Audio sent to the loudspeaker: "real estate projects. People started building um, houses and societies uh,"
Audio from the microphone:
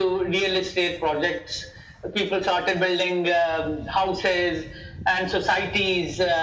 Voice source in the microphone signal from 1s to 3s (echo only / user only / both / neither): echo only